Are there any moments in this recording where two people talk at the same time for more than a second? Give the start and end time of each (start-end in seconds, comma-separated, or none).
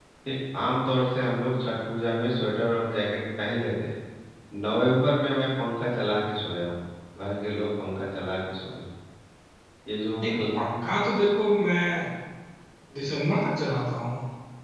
none